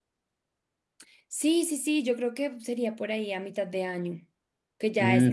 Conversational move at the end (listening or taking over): taking over